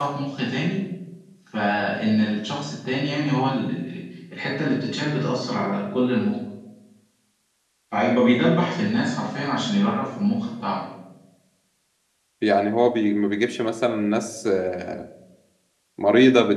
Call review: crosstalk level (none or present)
none